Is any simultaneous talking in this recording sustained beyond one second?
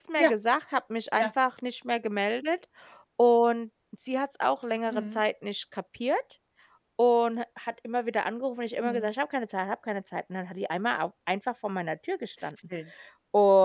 No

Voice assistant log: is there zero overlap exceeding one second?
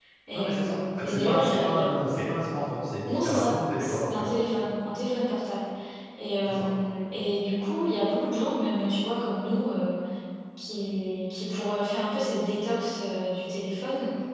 No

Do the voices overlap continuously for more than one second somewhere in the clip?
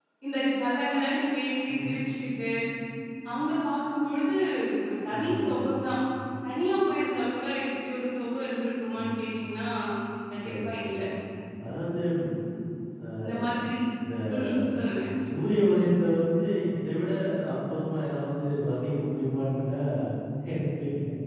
No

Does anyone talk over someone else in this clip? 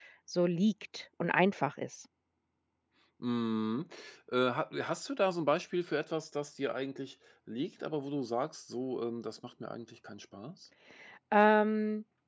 No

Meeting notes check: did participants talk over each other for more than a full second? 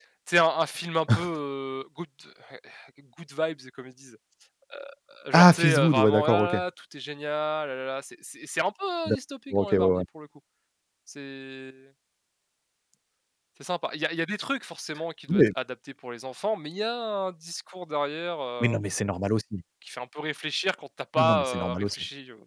Yes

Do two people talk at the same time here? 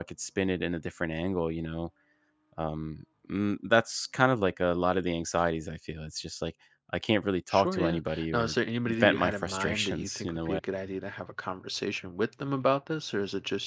Yes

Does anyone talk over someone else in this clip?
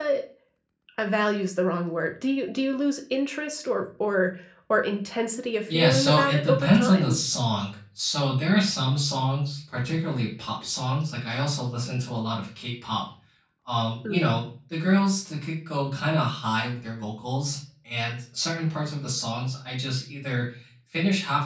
Yes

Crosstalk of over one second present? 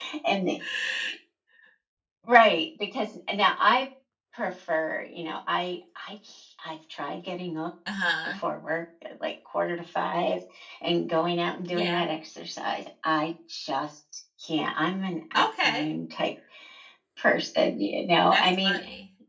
No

